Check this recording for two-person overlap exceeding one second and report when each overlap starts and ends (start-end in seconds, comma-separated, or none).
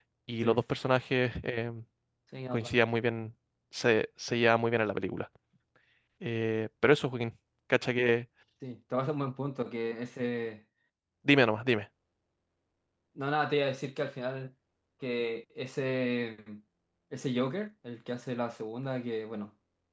none